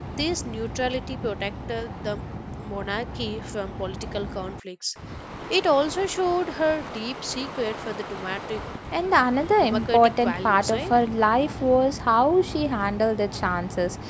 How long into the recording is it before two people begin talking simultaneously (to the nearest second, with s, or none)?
10 s